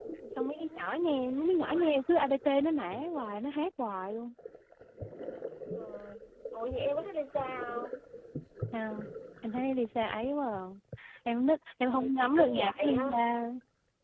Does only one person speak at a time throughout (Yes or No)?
No